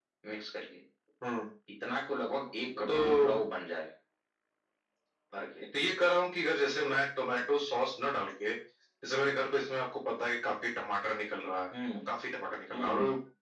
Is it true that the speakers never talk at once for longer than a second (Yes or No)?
Yes